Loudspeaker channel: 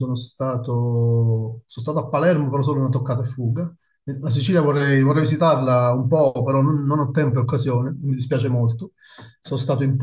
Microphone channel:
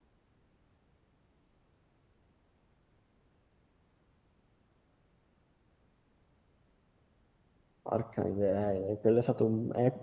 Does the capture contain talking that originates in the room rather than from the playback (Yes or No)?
Yes